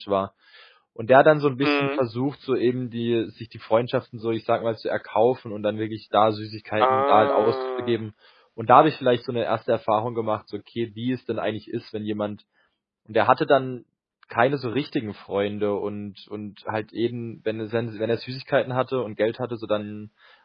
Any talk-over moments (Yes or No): Yes